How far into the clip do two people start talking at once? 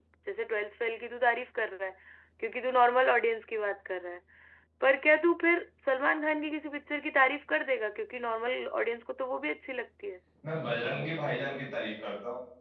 none

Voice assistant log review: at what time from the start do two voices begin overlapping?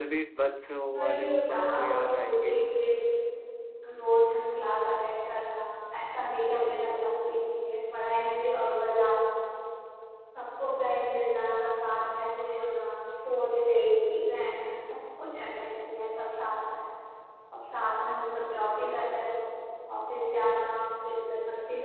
0.9 s

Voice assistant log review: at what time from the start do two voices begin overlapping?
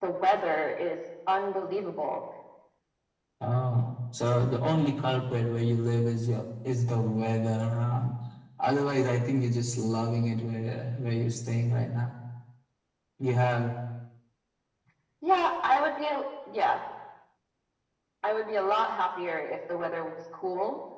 none

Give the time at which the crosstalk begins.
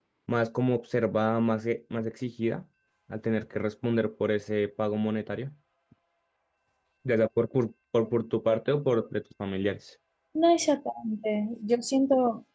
none

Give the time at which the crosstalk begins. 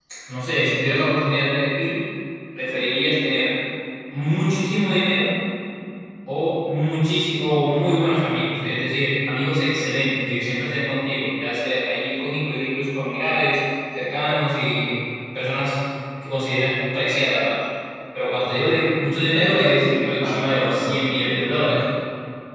19.3 s

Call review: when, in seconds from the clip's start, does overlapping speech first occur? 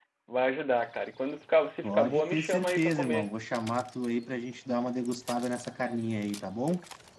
1.8 s

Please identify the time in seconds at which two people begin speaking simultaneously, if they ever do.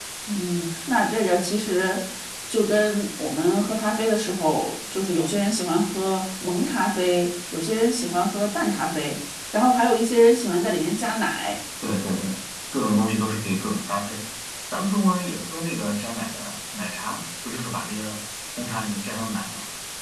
none

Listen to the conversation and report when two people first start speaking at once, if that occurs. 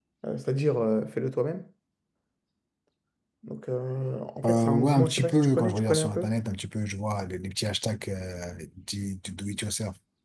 4.4 s

